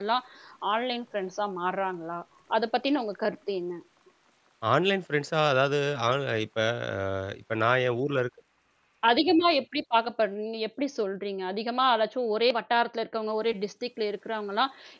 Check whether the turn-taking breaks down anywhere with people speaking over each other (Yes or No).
No